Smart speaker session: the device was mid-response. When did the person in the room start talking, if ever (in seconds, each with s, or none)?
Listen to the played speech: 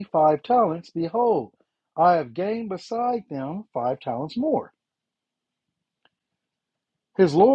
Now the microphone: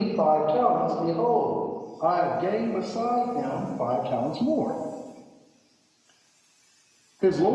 none